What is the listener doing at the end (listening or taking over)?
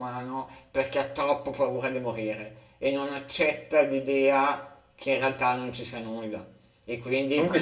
listening